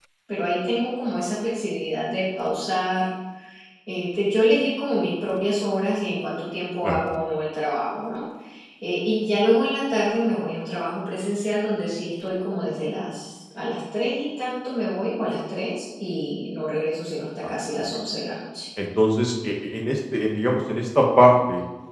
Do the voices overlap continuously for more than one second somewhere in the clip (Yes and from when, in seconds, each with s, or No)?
No